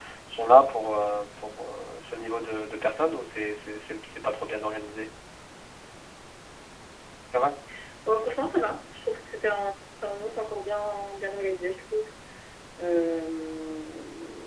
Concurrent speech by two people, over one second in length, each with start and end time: none

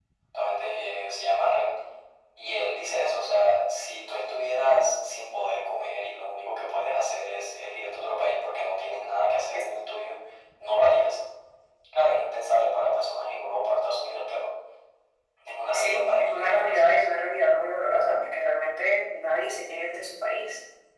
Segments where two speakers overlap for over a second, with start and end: 15.7-17.0

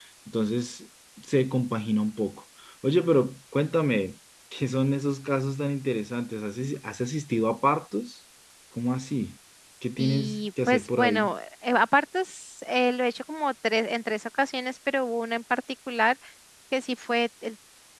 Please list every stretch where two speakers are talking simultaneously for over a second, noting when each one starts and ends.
10.0-11.3

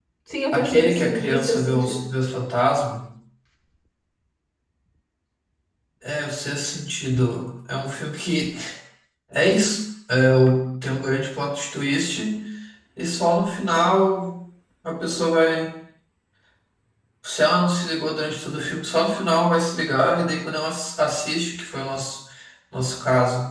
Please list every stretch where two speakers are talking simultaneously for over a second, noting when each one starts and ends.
0.5-2.0

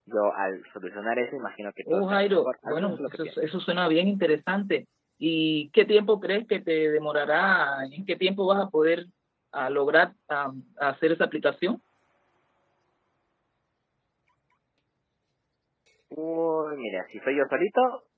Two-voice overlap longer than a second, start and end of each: 1.9-3.3

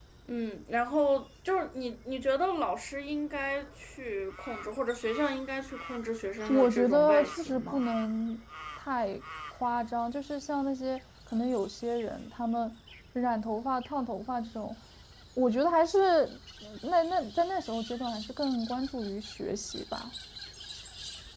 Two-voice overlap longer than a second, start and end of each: 6.5-7.8

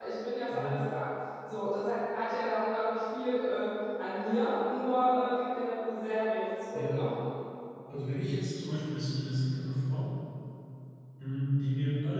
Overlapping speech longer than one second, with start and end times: none

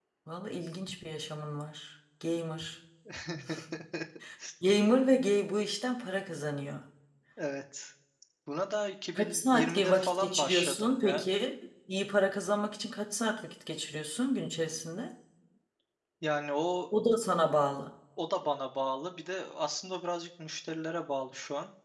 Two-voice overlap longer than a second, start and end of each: 9.2-11.3

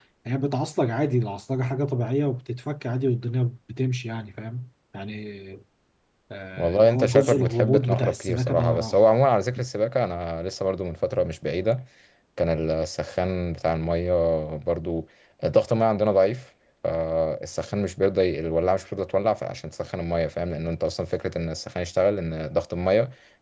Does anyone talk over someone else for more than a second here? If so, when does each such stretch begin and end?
6.6-9.0

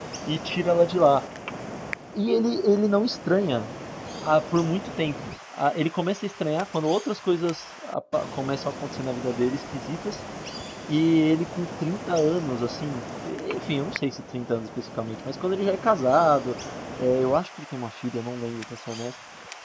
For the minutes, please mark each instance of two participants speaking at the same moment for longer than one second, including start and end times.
none

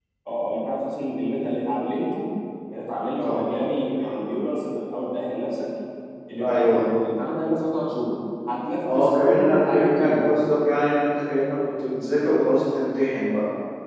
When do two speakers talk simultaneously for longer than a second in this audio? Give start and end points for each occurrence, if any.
8.9-10.3

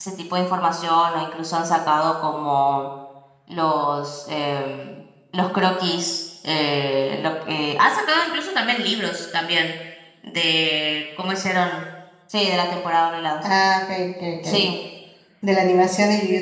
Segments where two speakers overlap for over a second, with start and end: none

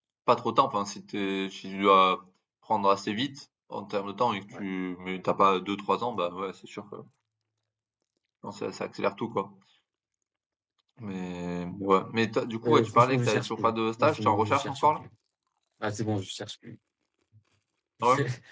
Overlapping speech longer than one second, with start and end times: 12.7-15.0

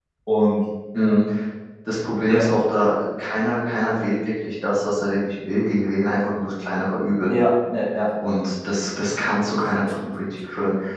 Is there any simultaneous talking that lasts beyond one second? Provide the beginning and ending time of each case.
none

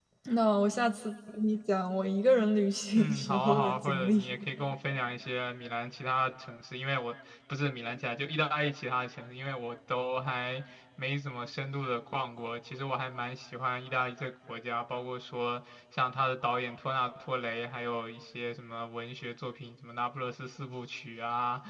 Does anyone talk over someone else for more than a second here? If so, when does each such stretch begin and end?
2.9-4.2

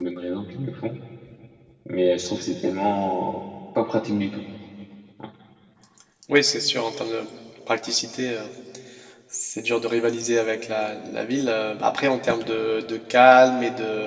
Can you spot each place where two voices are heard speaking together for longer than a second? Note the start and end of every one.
none

